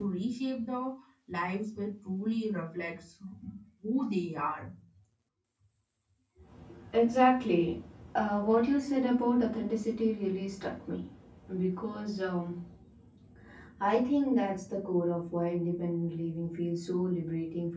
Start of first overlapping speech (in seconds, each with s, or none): none